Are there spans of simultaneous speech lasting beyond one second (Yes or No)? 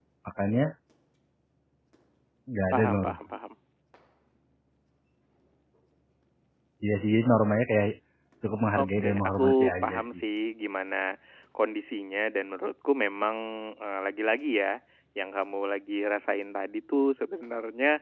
Yes